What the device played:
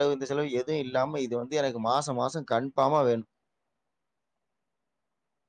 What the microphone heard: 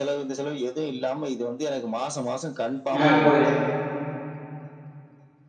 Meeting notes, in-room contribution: present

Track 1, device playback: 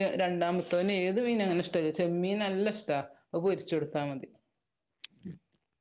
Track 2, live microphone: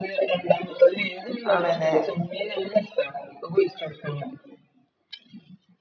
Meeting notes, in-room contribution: present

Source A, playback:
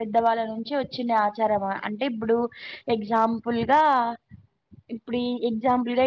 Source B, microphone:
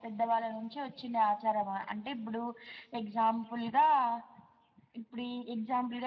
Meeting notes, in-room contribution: none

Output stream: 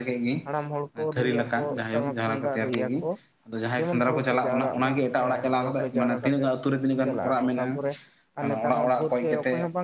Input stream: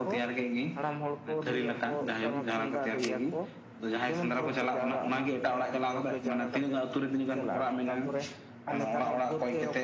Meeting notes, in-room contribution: none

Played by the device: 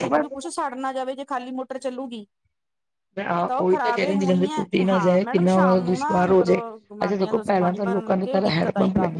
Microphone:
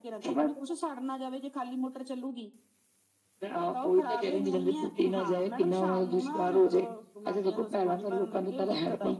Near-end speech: none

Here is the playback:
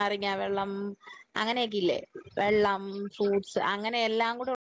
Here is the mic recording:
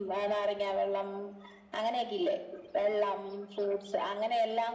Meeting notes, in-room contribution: none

